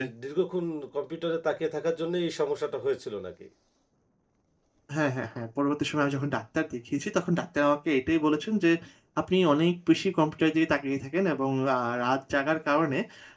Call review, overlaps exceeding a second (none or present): none